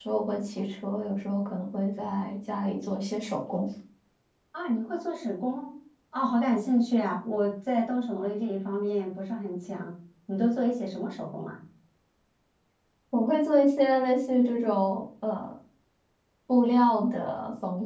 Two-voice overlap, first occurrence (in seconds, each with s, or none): none